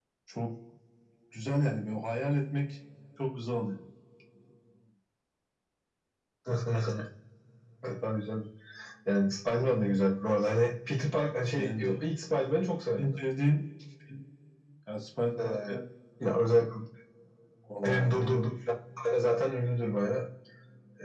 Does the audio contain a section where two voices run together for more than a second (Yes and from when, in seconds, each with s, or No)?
No